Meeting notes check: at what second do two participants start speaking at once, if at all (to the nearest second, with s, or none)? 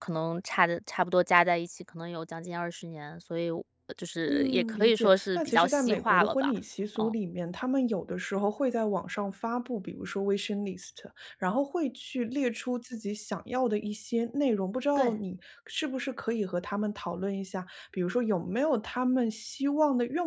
4 s